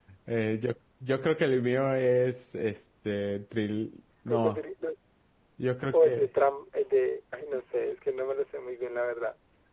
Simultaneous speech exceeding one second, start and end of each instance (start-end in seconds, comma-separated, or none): none